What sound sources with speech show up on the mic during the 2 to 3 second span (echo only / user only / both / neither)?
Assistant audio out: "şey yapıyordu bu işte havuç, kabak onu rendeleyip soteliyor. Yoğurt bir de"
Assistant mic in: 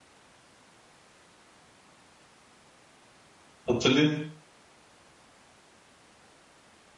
neither